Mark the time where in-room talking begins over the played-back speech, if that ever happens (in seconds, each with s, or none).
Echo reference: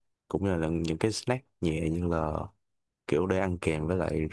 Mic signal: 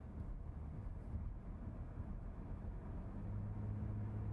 none